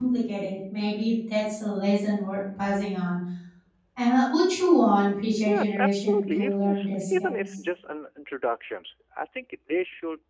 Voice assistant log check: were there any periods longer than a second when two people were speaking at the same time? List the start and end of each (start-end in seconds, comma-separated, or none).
5.5-7.6